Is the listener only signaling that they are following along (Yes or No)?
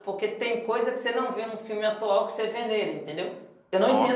Yes